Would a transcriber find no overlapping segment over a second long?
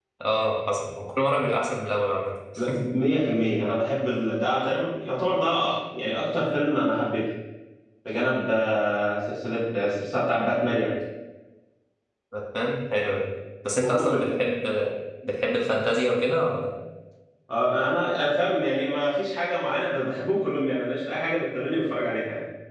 Yes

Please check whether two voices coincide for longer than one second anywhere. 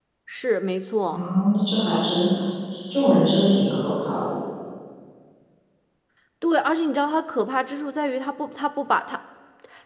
No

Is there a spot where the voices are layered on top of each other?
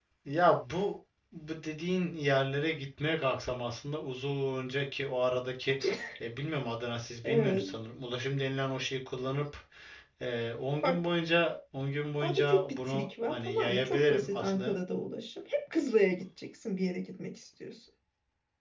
Yes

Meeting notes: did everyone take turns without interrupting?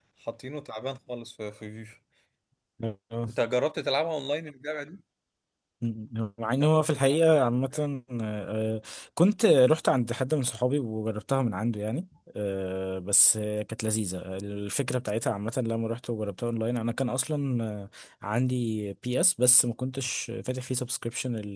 Yes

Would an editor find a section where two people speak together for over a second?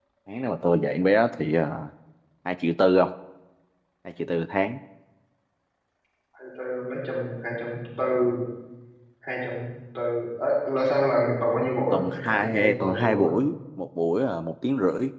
Yes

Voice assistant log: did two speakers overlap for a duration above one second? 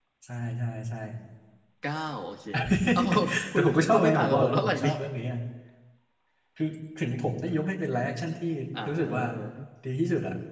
Yes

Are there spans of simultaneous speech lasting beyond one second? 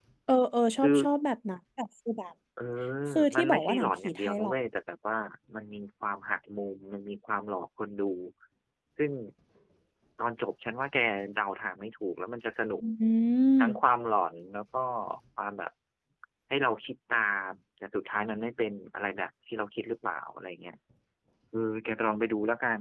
Yes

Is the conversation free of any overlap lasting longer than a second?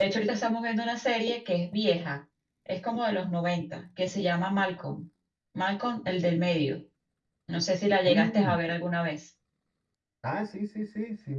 Yes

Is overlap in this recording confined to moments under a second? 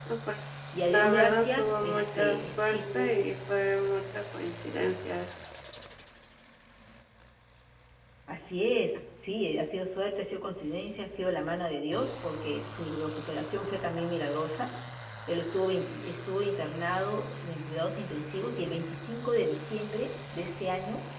No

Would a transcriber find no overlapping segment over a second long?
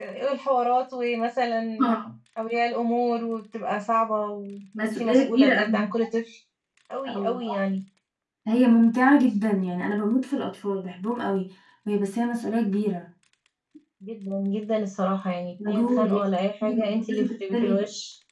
No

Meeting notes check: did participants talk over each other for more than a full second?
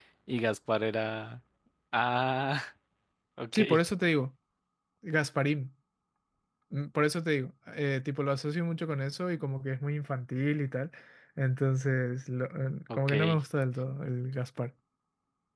No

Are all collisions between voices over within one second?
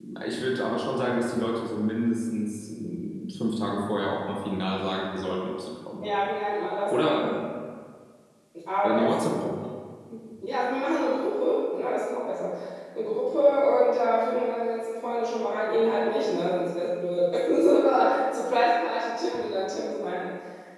Yes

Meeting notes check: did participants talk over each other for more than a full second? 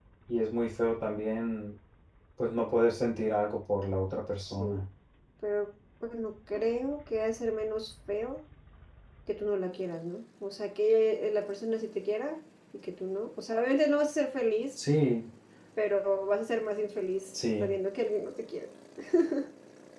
No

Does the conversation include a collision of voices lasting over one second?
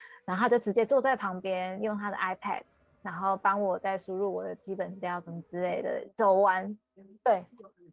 No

